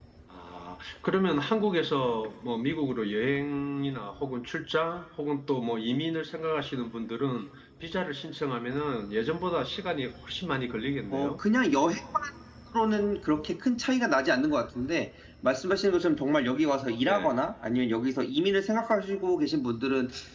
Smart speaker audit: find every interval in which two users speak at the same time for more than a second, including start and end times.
none

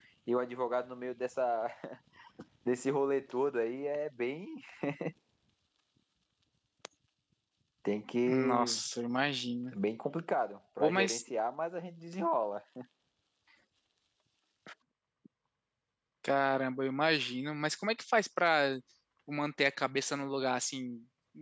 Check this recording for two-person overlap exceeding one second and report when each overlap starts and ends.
none

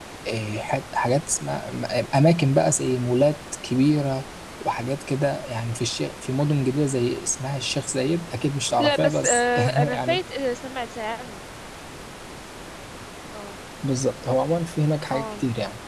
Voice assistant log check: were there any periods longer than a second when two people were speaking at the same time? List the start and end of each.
8.8-10.2

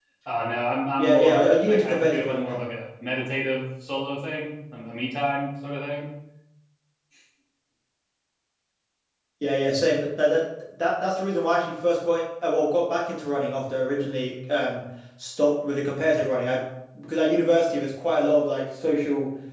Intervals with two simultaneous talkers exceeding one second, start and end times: 1.0-2.6

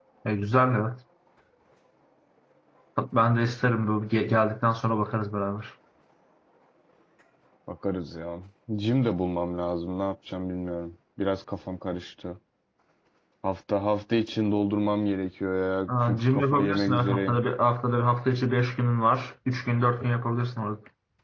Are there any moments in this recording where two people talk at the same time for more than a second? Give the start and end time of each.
15.9-17.4

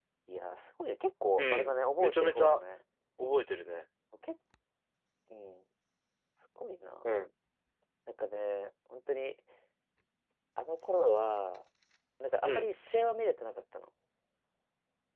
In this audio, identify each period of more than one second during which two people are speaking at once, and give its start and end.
1.4-2.6

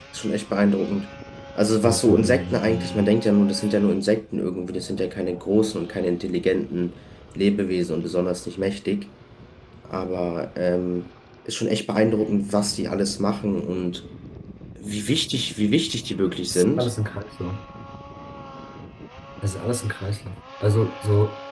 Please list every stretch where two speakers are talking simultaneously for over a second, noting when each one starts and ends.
1.8-3.1

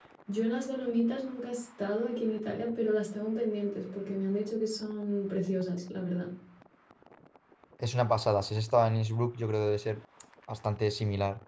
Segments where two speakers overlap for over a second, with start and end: none

